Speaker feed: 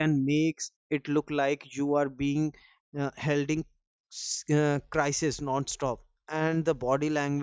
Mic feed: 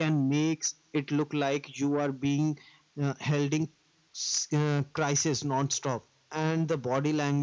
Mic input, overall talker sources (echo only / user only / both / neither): echo only